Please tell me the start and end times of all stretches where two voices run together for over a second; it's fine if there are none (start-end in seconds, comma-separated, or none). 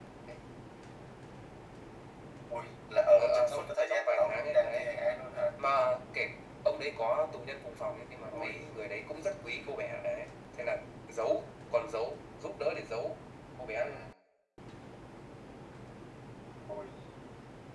3.1-4.9